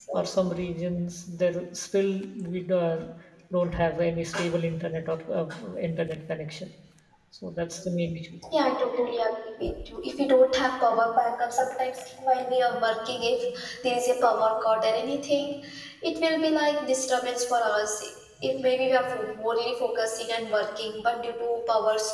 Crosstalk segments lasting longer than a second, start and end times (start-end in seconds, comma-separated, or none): none